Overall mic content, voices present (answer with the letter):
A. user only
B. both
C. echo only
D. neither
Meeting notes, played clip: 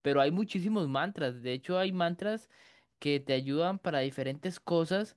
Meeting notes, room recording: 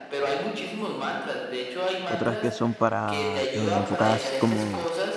B